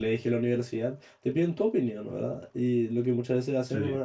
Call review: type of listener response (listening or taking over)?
listening